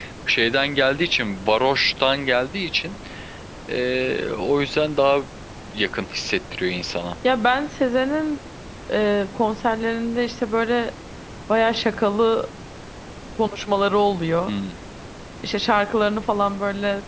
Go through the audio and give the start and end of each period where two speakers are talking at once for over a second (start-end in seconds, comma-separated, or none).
none